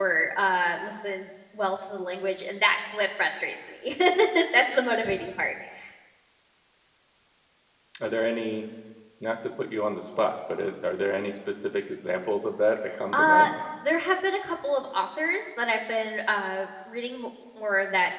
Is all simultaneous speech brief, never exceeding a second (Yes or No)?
Yes